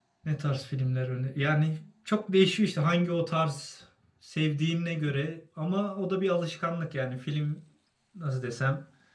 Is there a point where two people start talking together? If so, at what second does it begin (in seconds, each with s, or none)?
none